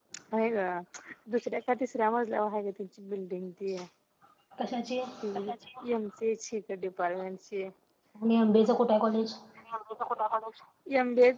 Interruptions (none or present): none